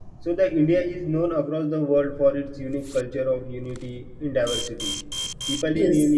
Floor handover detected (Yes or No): No